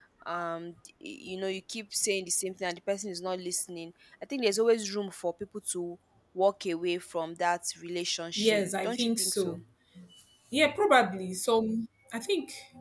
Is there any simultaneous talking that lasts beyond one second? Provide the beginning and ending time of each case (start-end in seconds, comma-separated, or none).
8.4-9.6